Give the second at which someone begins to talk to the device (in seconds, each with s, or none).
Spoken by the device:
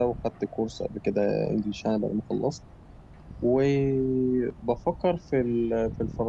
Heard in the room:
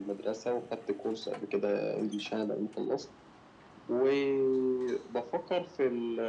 none